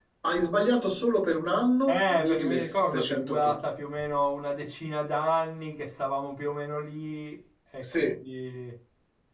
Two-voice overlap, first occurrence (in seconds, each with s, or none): 1.9 s